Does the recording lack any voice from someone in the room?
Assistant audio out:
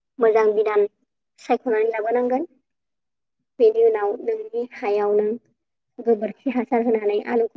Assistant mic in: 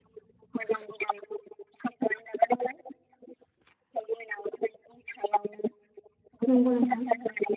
No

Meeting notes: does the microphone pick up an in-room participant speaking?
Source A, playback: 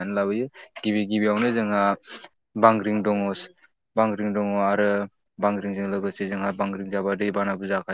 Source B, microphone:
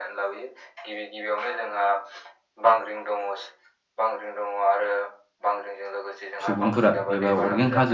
Yes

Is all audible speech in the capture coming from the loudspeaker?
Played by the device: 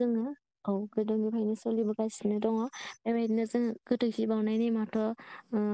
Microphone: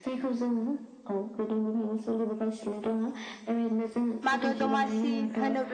No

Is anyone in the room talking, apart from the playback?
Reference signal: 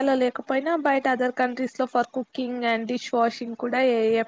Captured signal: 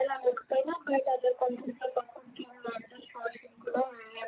No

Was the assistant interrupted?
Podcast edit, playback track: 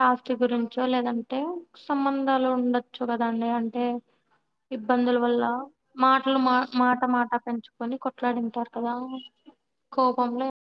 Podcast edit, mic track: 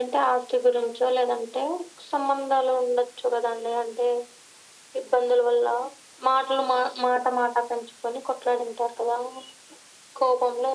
No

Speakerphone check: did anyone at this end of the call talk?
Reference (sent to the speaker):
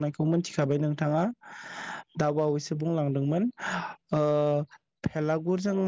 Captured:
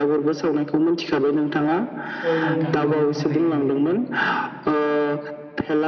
Yes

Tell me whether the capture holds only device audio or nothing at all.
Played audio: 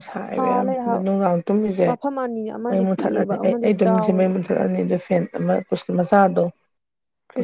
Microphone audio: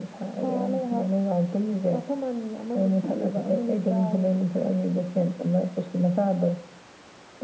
Yes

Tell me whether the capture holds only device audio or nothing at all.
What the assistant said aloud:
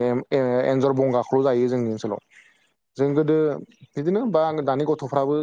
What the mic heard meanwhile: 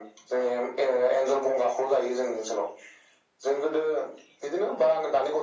Yes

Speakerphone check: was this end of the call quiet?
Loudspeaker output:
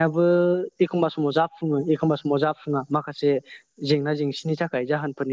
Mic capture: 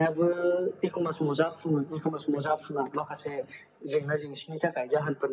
Yes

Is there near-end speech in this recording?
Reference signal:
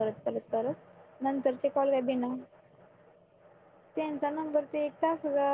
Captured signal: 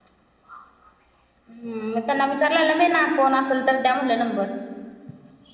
Yes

